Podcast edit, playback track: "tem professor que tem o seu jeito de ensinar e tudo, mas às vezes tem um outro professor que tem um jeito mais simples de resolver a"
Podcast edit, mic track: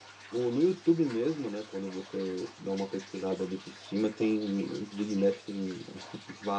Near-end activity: present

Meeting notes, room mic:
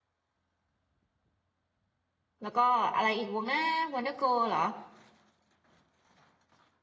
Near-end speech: present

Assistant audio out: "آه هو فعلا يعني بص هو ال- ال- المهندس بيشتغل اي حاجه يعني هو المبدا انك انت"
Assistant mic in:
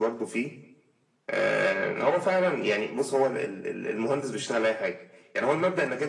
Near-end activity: none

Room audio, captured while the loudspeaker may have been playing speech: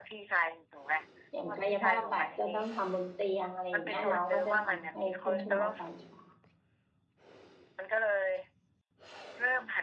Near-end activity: present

